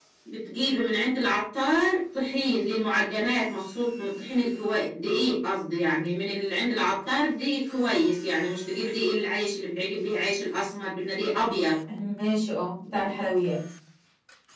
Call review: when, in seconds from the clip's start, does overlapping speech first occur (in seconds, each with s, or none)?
none